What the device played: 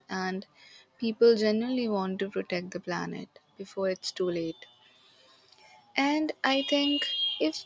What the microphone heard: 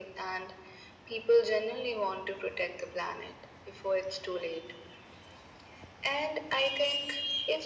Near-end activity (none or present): none